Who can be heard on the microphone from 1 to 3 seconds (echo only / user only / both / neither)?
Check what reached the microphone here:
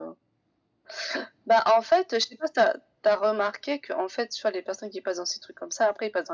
echo only